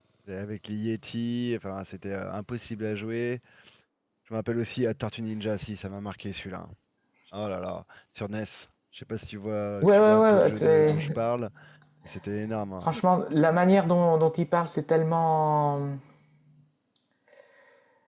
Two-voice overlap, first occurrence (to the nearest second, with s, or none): 10 s